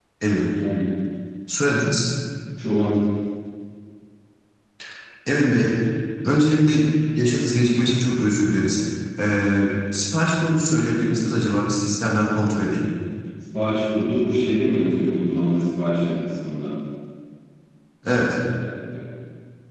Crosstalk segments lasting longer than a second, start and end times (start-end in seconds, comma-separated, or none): none